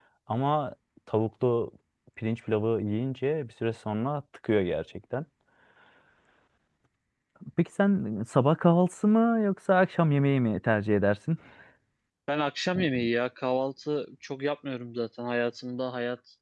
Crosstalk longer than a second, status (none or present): none